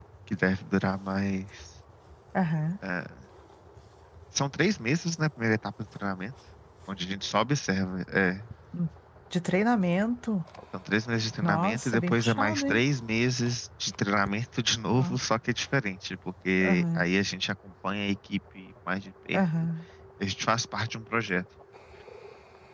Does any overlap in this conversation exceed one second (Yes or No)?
Yes